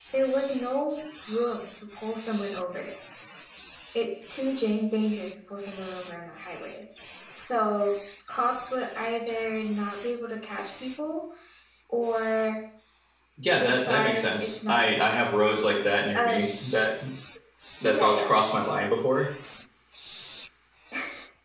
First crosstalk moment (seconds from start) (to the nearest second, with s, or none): 14 s